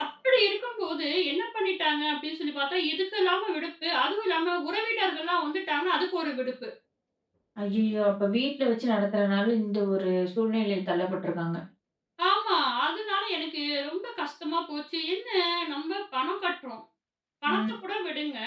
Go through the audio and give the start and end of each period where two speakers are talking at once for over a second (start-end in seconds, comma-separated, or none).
none